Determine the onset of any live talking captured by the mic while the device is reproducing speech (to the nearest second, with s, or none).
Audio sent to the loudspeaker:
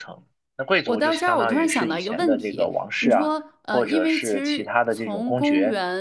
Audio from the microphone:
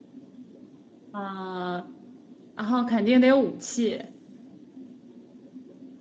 1 s